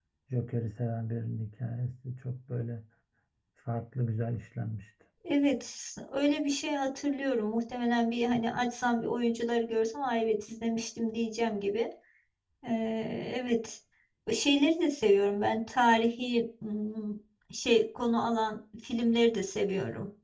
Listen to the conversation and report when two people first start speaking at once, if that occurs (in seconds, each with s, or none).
none